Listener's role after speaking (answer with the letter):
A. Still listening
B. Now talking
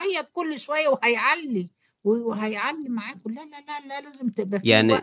B